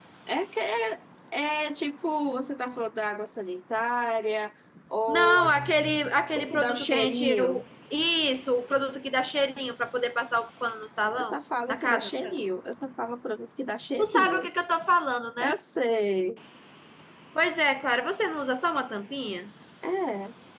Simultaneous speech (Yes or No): Yes